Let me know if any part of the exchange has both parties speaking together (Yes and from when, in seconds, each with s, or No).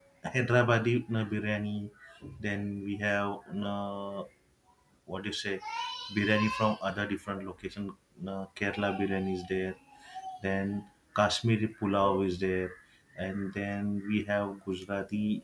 No